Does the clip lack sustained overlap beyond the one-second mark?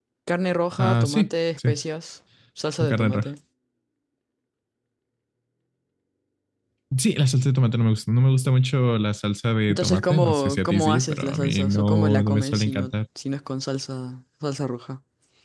No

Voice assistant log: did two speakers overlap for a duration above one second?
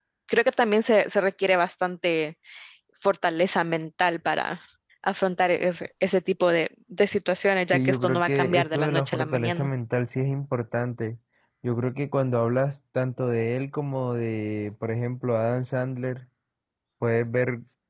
Yes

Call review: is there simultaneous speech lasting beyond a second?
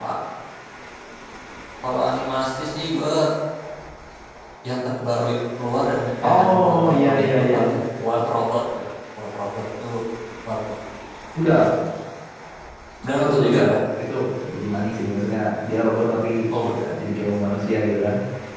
Yes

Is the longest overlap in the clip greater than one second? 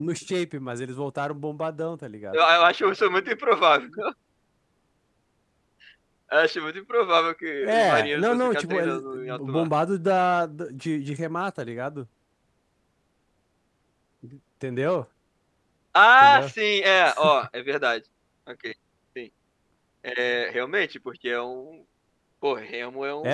Yes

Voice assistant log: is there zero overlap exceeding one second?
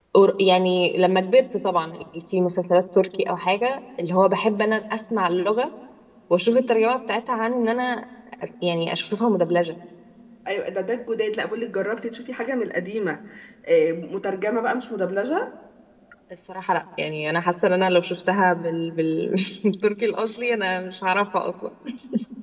Yes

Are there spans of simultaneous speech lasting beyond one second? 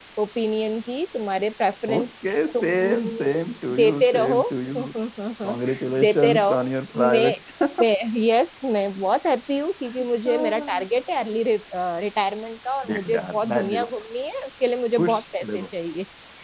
Yes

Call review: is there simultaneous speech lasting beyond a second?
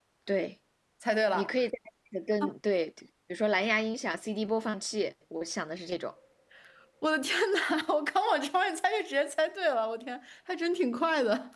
No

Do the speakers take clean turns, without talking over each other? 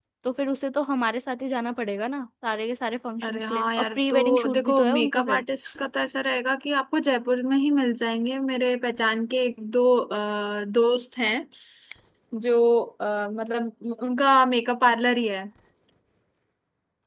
No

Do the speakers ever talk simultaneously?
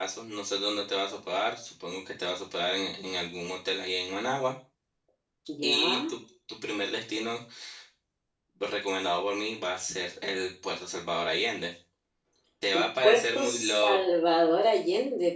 Yes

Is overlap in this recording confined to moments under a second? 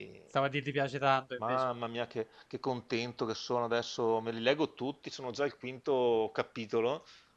Yes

